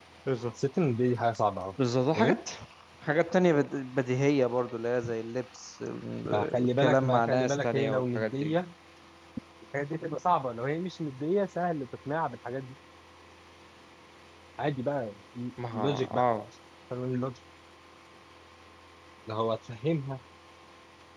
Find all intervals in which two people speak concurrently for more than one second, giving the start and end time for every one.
6.3-8.6

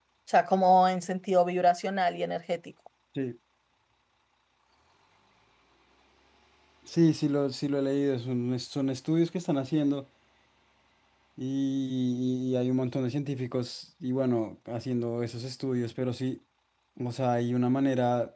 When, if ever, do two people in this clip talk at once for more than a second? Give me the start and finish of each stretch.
none

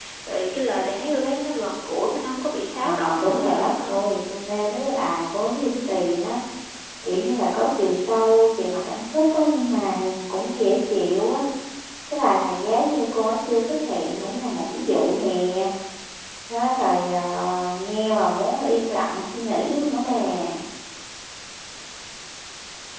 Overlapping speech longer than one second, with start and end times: 2.7-4.0

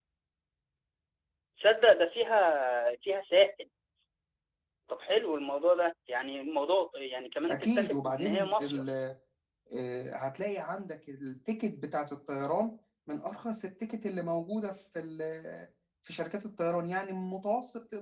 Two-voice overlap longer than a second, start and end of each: 7.5-8.8

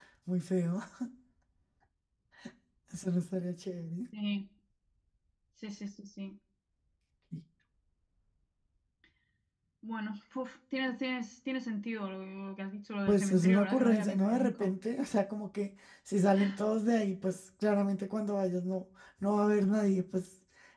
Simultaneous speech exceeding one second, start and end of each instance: 13.1-14.7

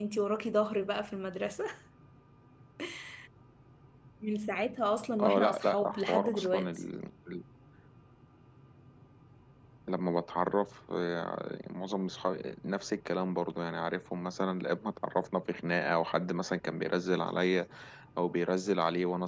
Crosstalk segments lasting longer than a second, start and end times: 5.2-6.7

